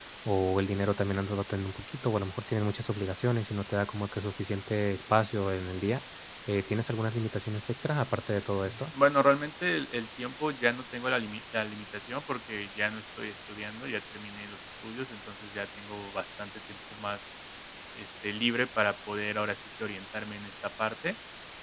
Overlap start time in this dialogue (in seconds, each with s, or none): none